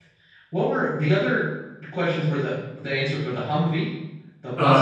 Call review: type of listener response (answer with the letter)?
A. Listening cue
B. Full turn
B